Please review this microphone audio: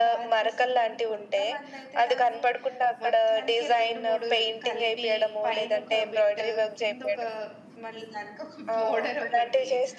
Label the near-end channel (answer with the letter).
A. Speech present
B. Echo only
A